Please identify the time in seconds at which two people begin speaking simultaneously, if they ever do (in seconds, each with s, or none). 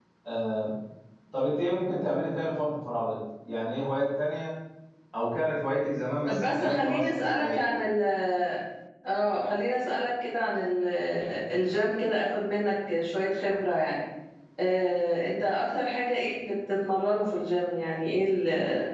6.3 s